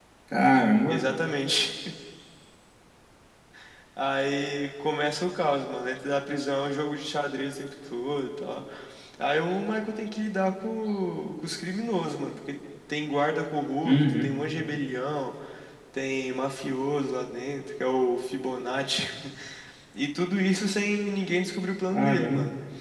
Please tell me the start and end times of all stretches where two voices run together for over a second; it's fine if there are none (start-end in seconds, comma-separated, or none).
none